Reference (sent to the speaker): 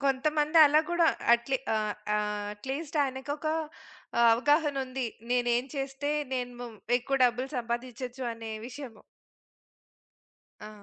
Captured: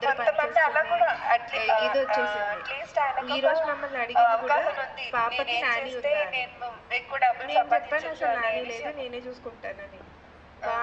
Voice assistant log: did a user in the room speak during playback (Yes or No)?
Yes